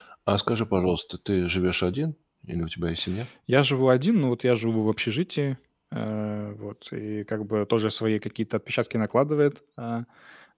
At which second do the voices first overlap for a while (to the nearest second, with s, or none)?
none